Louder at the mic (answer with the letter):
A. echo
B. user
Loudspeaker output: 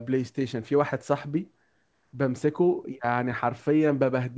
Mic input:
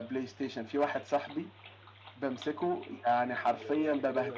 A